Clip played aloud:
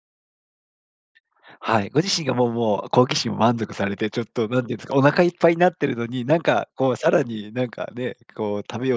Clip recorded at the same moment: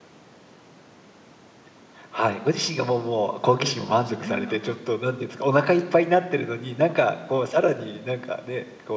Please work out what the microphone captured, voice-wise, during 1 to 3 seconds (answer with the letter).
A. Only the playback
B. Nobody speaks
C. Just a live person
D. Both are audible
A